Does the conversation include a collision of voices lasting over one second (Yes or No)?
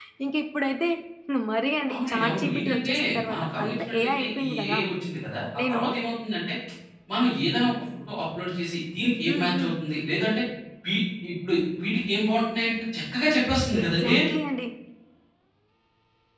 Yes